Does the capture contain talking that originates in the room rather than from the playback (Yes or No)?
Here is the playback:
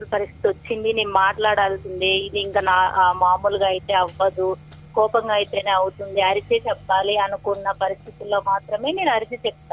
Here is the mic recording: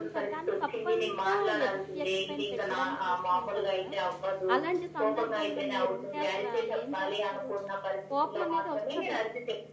Yes